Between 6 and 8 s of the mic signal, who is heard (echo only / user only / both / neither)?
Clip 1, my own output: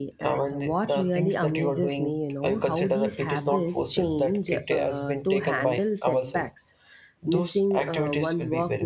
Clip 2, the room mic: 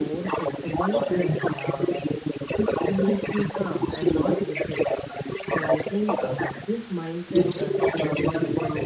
both